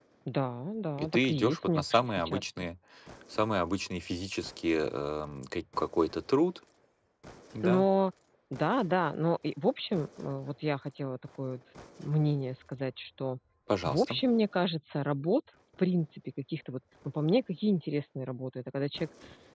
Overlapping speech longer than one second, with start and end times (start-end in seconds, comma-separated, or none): 1.0-2.4